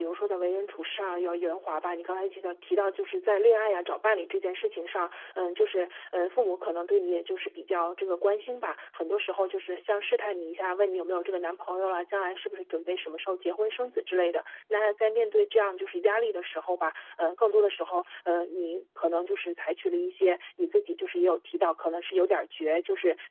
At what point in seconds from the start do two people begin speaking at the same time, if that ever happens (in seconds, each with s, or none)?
none